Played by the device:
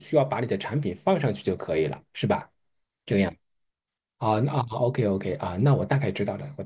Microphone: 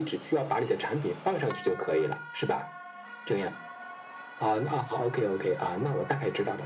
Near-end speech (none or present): none